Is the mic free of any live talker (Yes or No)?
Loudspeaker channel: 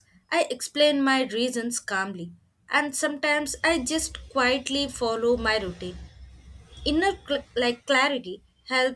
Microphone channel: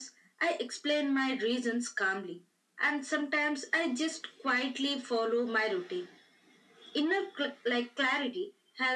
Yes